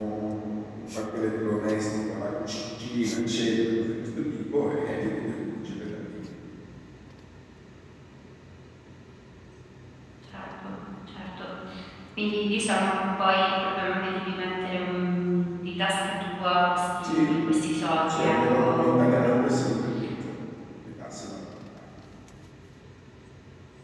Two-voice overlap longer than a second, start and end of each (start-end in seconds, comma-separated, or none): 18.0-19.6